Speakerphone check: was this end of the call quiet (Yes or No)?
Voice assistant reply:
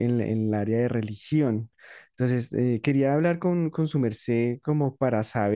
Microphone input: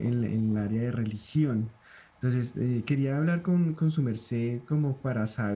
Yes